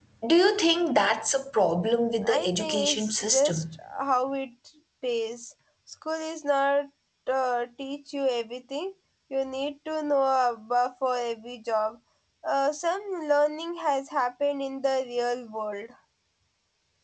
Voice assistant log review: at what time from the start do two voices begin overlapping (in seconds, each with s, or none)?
2.2 s